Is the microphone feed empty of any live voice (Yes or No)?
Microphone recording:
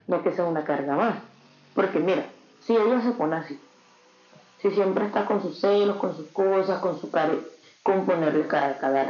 Yes